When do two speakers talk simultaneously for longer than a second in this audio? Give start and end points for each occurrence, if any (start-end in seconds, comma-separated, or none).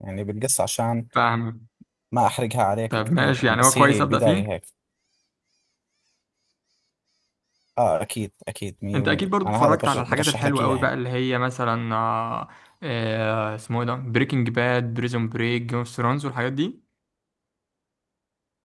2.9-4.5, 8.9-10.9